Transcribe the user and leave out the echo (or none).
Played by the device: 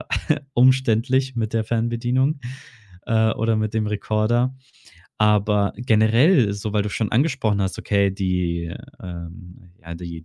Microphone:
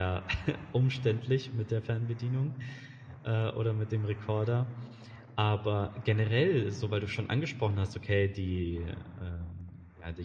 none